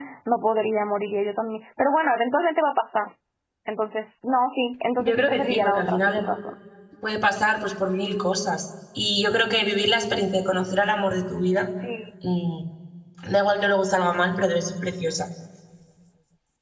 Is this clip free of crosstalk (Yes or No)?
No